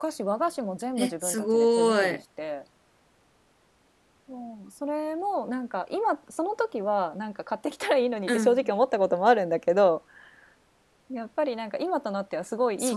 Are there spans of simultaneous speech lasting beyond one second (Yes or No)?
Yes